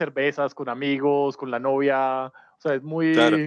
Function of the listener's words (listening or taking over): listening